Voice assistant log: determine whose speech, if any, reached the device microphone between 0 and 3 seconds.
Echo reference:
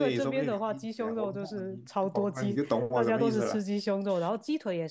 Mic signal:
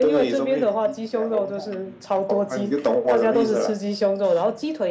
echo only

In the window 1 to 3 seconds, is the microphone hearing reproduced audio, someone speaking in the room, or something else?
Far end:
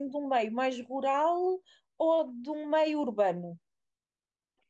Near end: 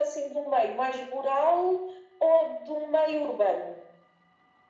echo only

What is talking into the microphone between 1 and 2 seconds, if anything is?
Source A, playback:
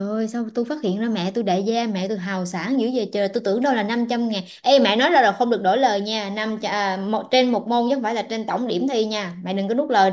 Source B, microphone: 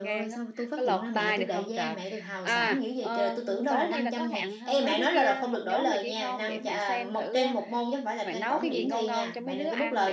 both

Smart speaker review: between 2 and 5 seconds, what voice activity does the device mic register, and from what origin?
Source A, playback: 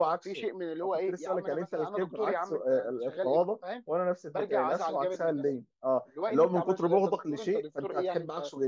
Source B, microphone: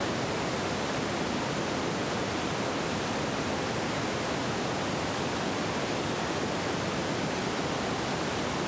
neither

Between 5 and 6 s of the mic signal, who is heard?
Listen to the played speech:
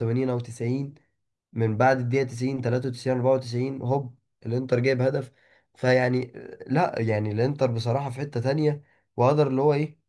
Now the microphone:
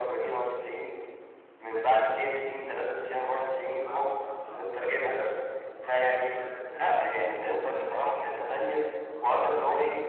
both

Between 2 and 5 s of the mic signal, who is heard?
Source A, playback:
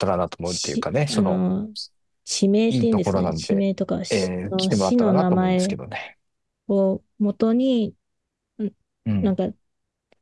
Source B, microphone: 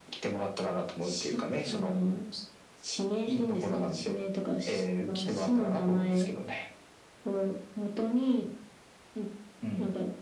echo only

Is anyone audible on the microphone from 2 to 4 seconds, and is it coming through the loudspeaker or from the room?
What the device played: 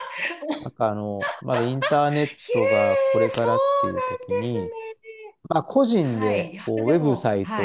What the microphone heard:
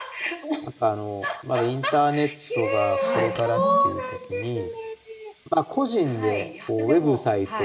both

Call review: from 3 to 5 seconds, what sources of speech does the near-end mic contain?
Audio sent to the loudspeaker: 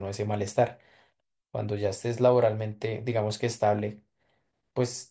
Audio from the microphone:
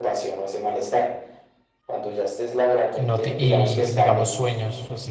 both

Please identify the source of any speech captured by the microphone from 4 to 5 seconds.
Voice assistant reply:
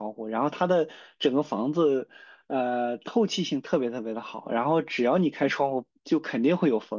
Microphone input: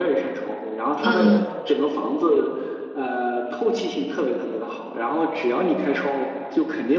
echo only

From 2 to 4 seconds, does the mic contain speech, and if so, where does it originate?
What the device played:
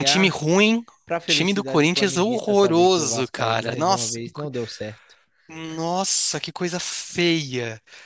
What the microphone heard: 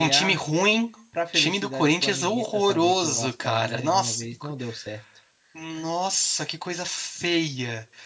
echo only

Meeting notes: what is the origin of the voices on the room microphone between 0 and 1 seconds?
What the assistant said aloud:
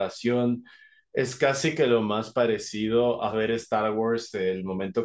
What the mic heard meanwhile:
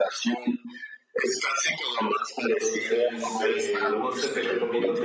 echo only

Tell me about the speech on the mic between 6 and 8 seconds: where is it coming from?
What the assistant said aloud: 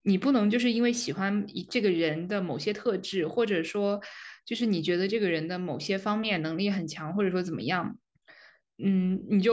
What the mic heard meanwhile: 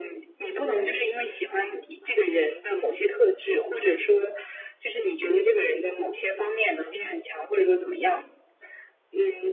echo only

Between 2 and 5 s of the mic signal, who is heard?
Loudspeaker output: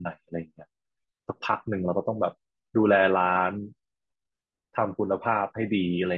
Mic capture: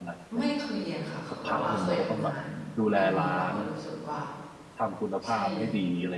both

